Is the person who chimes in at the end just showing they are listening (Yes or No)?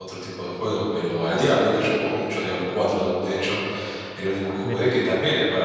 Yes